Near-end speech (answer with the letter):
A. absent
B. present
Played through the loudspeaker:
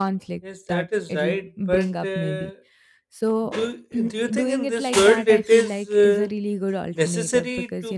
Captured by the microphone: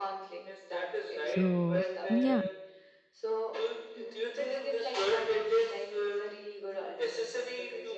B